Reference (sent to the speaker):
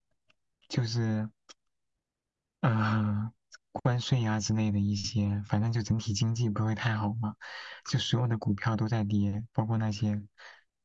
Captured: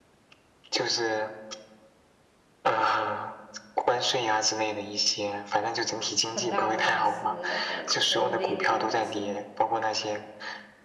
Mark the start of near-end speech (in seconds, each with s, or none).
6.3 s